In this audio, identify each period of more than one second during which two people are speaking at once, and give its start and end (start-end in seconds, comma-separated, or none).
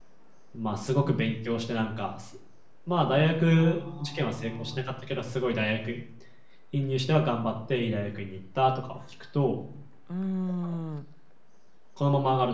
3.6-4.9